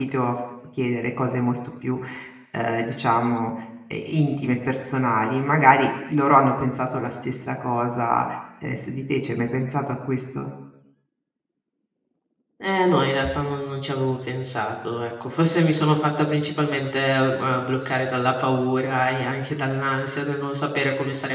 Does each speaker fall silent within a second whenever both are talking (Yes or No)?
Yes